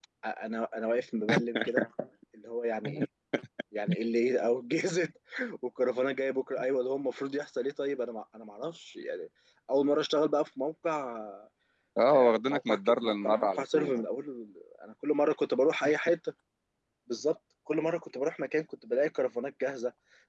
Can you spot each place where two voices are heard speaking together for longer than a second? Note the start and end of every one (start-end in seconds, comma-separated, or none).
12.1-14.0